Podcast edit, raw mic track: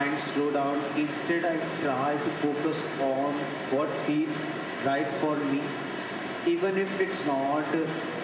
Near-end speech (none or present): none